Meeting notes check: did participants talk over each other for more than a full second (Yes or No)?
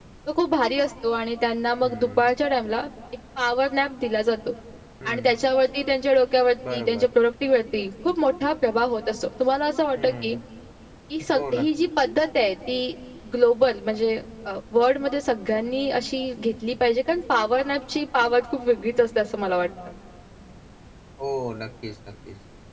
No